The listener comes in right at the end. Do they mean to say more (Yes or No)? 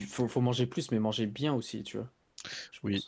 Yes